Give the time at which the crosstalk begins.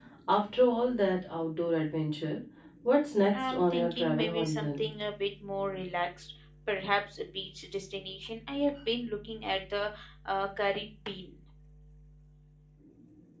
3.3 s

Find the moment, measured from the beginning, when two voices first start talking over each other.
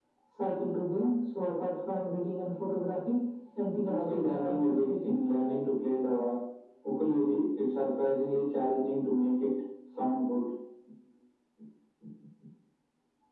3.8 s

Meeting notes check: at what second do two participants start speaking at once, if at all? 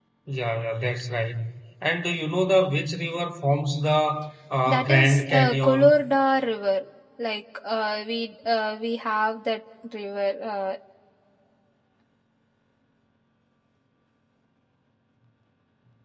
4.7 s

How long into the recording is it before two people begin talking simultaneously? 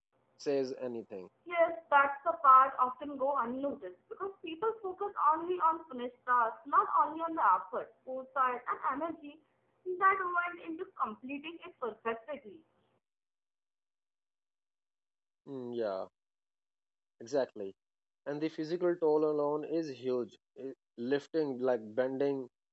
none

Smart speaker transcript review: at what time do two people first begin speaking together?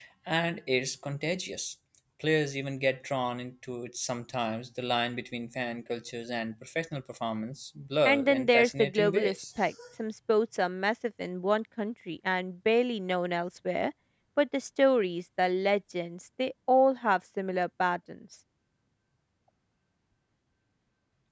8.1 s

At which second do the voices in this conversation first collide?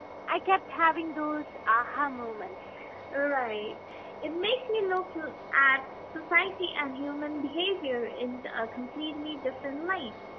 none

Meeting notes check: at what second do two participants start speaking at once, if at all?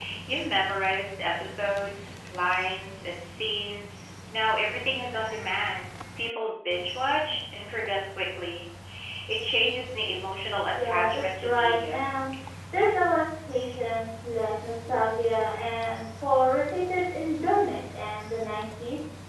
10.7 s

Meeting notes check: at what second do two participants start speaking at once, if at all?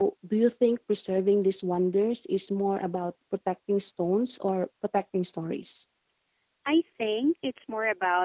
none

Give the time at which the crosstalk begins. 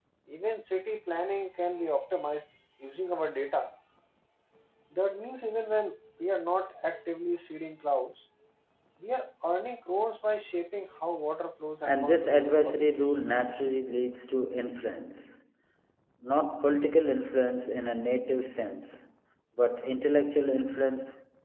11.8 s

